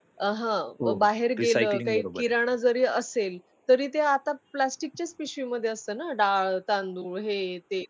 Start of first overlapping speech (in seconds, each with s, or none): 0.8 s